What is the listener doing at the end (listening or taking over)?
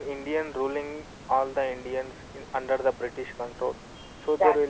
listening